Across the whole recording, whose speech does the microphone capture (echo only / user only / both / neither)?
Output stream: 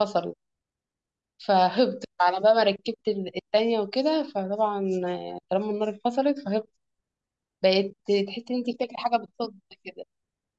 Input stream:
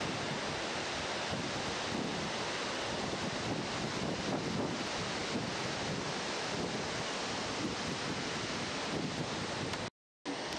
neither